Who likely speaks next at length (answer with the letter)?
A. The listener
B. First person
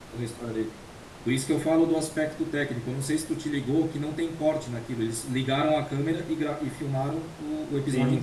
A